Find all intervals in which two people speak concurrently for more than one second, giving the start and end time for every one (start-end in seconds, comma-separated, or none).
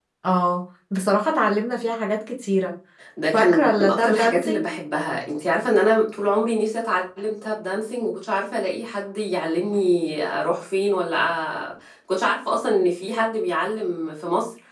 3.3-4.7